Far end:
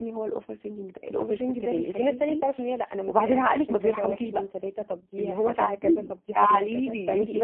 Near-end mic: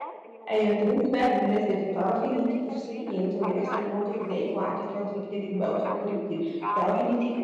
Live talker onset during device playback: 0.5 s

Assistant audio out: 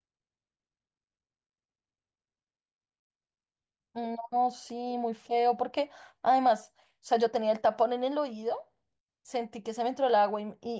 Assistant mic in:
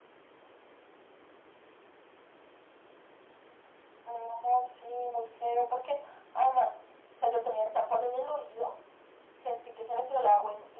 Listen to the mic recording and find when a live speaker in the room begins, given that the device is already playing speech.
none

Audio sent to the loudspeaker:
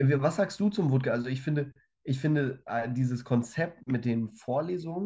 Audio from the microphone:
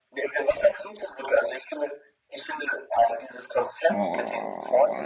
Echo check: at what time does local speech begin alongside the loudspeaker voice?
3.9 s

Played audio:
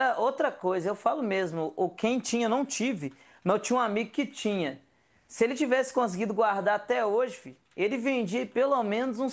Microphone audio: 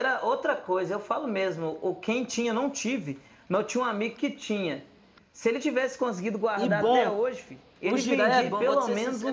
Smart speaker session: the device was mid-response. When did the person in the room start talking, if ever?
6.6 s

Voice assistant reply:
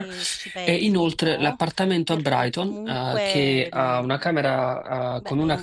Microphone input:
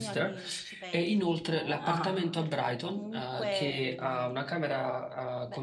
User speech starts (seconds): 1.8 s

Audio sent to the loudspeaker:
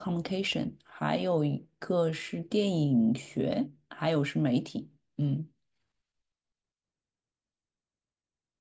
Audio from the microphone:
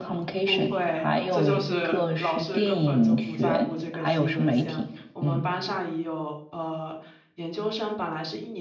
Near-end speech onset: 0.4 s

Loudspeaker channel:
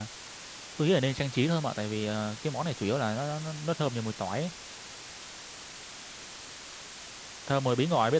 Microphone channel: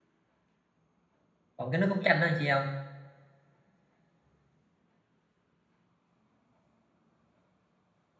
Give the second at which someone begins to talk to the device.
1.6 s

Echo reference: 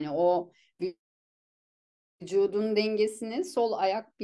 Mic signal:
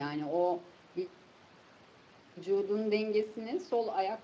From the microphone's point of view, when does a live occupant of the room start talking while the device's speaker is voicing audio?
none

